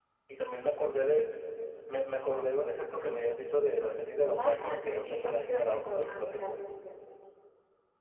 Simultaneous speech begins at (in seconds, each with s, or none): 4.4 s